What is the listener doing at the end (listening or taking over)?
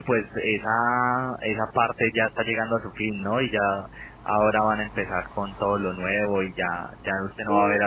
listening